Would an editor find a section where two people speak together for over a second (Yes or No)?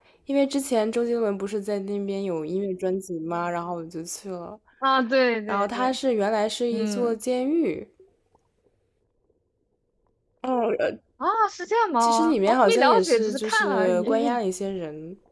Yes